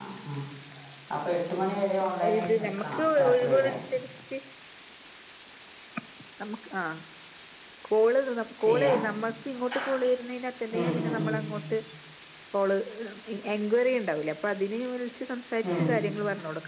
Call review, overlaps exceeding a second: present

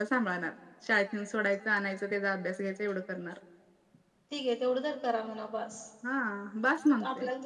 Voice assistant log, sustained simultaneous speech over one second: none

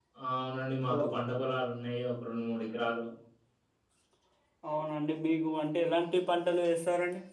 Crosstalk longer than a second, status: none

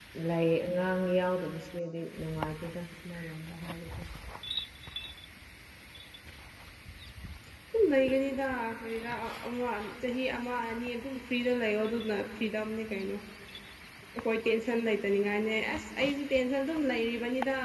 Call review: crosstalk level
none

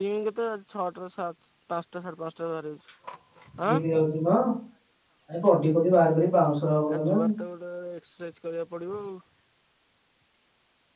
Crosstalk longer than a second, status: none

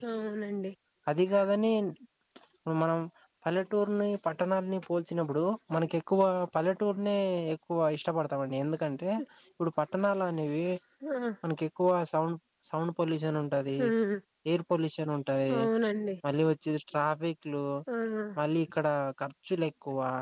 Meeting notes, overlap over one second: none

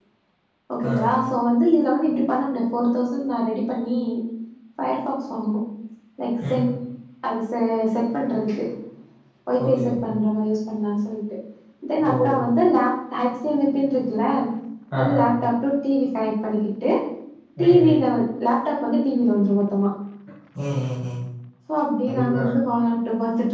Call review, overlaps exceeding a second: none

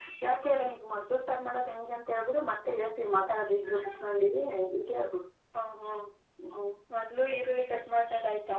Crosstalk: none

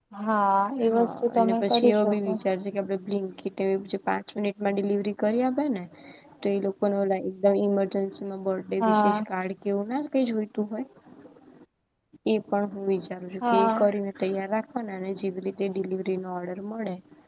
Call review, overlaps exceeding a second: present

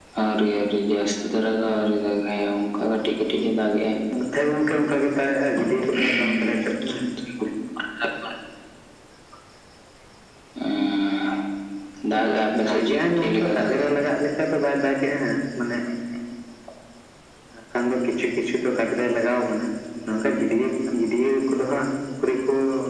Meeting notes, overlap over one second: present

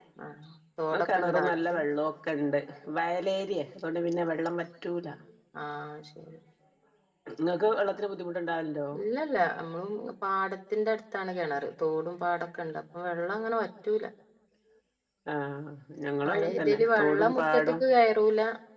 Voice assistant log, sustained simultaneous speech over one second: present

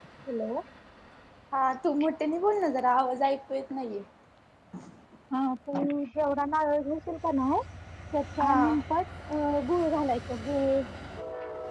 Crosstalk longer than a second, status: none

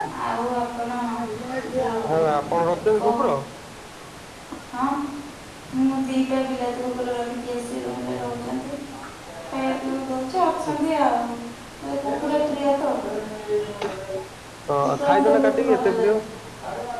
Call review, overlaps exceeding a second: present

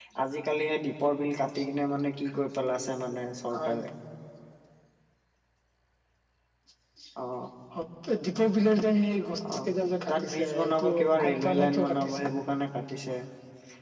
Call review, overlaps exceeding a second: present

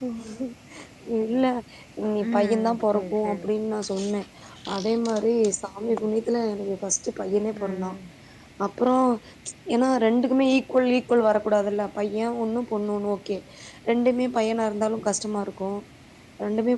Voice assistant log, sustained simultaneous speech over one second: present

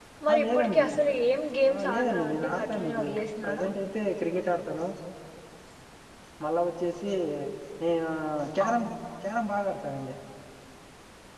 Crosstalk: present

